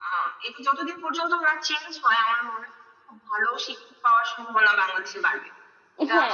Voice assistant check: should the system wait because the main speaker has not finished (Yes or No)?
No